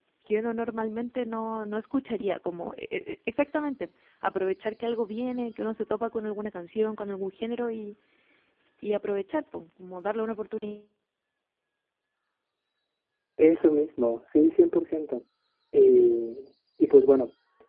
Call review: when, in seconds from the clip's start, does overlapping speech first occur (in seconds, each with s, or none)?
none